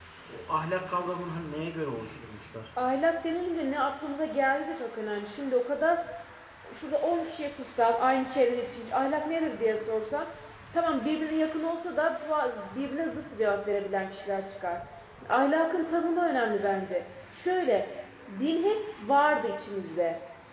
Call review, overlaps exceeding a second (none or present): none